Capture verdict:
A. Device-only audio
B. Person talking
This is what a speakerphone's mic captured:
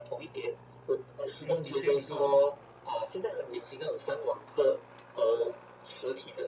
B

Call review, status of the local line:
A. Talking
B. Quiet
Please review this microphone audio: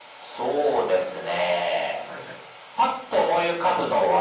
A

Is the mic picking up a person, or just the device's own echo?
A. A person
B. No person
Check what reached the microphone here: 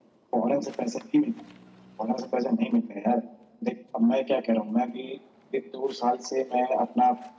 B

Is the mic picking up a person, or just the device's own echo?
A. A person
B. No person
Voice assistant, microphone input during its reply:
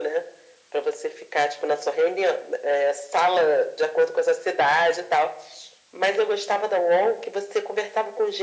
B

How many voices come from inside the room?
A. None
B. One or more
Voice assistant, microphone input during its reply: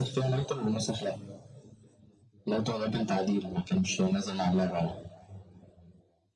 A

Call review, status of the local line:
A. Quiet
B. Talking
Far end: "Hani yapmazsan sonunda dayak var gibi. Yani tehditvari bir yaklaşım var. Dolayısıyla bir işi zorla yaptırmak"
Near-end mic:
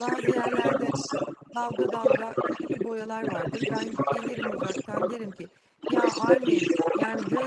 B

